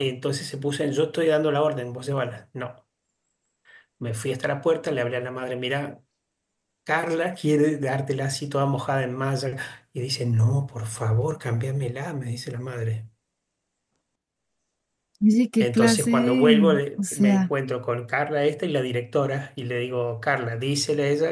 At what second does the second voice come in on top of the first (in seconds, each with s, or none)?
15.6 s